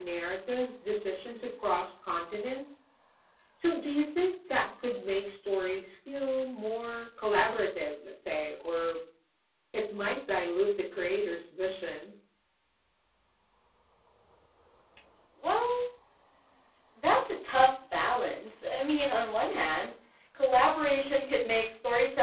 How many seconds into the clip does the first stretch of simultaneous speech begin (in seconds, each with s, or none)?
none